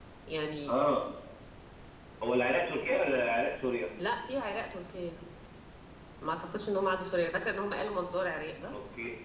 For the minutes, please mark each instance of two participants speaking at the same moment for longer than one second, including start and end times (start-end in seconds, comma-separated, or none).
none